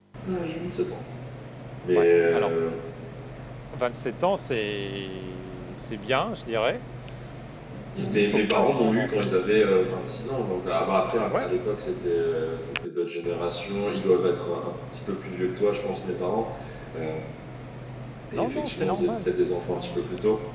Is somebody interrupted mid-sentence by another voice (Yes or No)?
Yes